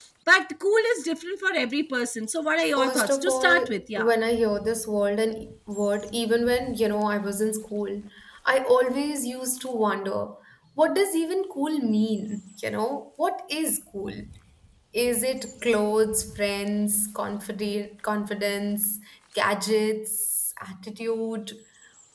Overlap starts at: 2.6 s

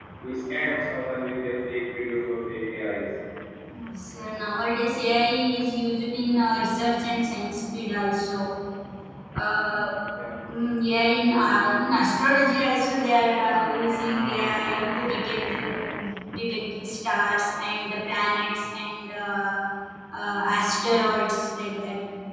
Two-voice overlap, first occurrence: none

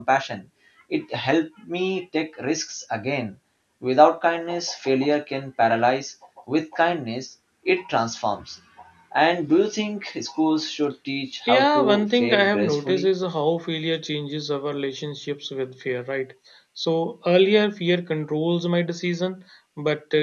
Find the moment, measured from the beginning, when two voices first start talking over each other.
11.4 s

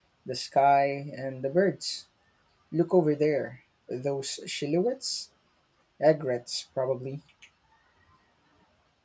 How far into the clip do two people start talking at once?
none

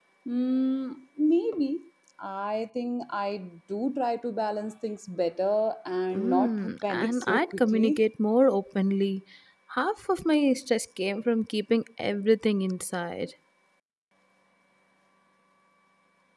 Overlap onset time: 6.1 s

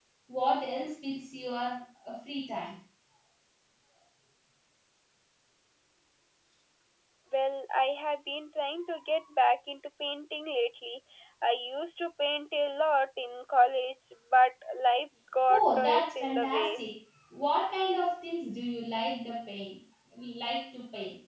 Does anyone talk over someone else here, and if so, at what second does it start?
15.5 s

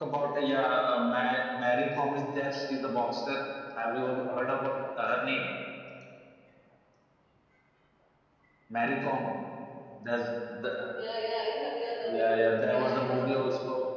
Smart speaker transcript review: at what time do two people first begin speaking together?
12.0 s

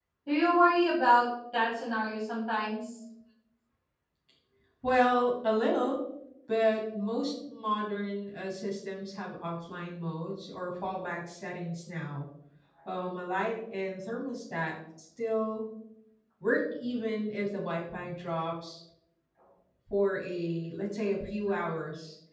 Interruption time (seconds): none

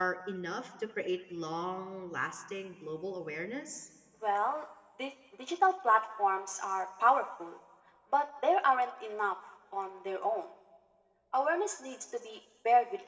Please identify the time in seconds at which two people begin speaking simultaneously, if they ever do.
none

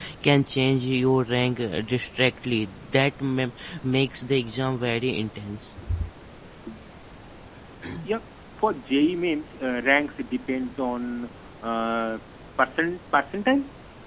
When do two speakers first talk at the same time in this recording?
none

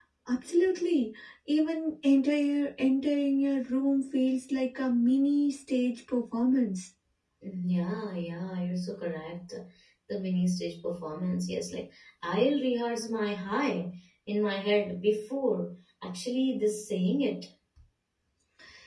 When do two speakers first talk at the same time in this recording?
none

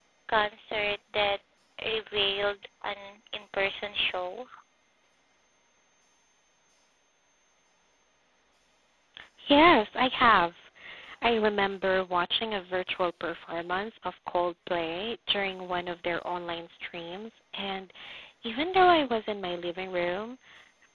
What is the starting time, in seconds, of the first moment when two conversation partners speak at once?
none

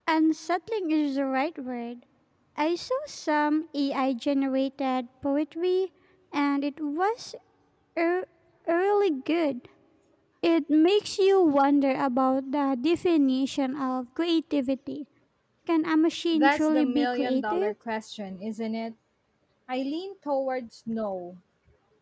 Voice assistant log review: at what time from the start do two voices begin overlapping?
16.3 s

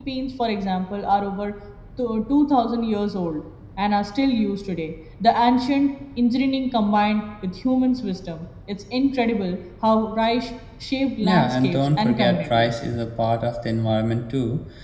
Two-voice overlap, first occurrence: 11.2 s

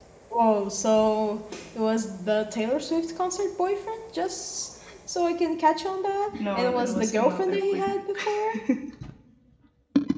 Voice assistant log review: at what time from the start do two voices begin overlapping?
6.3 s

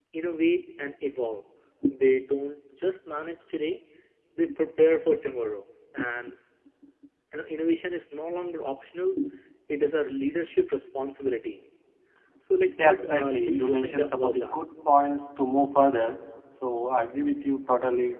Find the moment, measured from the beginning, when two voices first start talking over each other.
12.8 s

